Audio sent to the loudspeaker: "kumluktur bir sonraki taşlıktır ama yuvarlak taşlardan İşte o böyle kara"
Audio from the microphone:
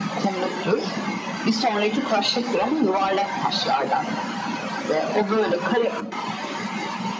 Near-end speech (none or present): none